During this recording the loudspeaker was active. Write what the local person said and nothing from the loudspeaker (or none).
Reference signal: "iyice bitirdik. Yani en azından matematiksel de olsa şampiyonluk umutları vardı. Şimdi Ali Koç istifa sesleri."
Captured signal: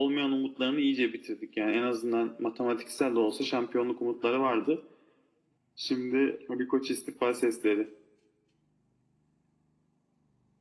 none